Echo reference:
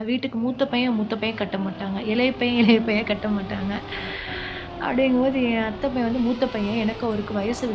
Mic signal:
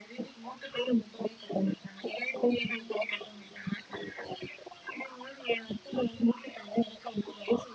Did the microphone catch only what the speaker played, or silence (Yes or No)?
Yes